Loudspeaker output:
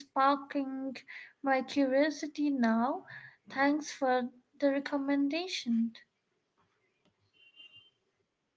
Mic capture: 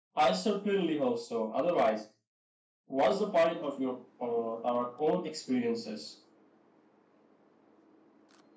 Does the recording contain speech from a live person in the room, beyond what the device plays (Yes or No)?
Yes